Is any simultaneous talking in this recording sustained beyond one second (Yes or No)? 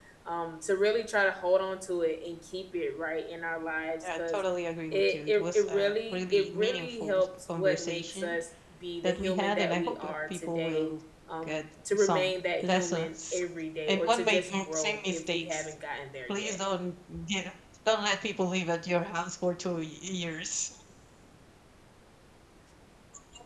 Yes